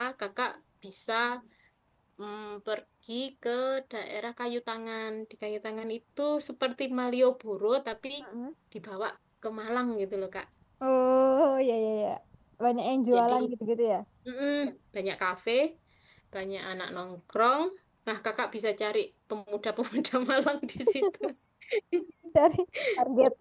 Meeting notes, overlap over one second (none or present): none